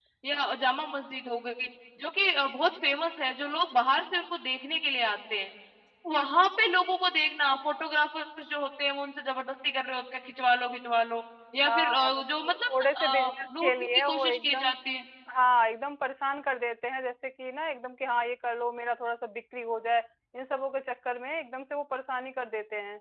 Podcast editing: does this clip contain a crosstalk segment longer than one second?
Yes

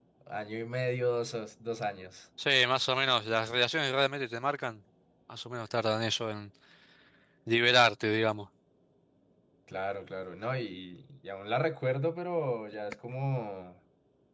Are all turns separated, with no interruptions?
Yes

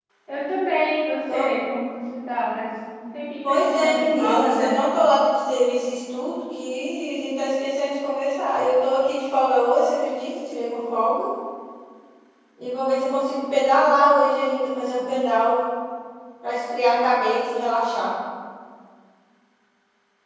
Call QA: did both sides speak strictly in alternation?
No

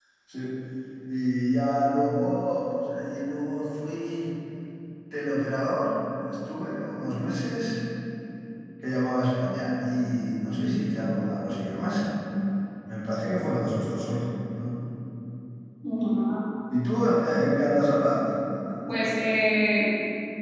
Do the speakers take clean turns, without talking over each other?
Yes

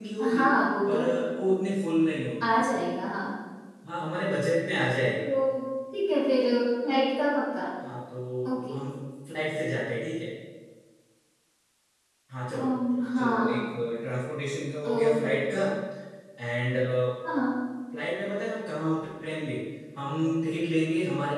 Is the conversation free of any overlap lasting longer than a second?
Yes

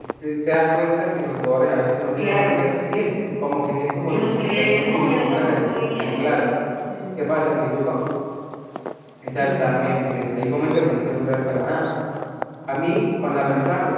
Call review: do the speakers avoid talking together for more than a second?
No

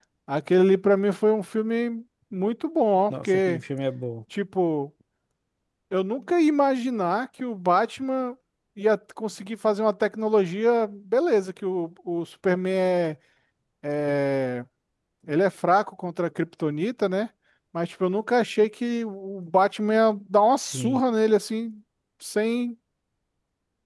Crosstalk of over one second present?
No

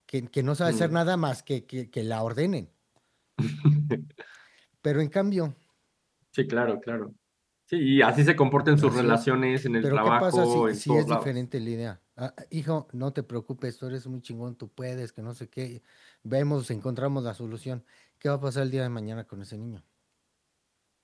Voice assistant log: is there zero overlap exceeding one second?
No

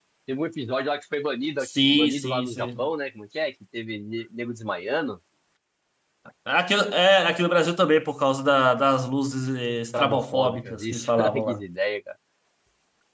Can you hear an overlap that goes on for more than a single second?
Yes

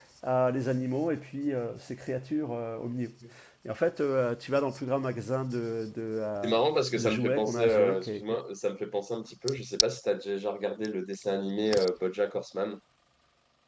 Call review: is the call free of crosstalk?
No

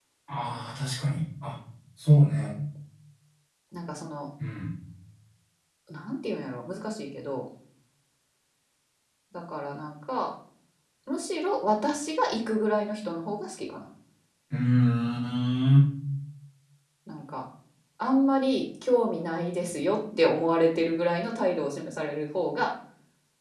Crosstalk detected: No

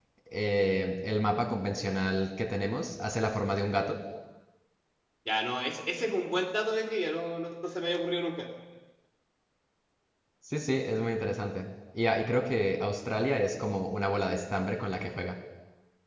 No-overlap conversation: Yes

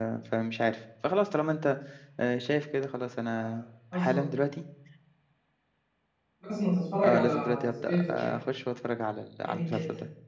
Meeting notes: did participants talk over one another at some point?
Yes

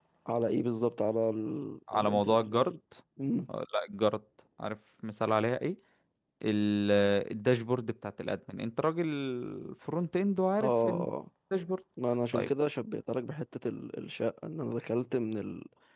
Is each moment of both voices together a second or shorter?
Yes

